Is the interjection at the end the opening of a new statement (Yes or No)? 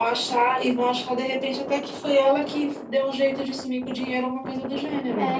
Yes